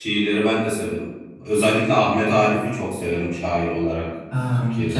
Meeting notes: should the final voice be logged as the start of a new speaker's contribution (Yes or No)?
Yes